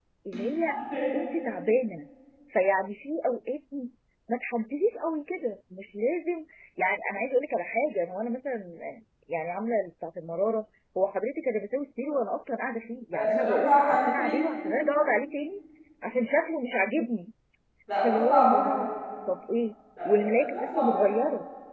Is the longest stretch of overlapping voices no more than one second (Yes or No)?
No